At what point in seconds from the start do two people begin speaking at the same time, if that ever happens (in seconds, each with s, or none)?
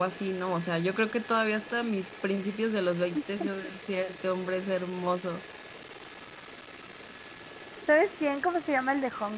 none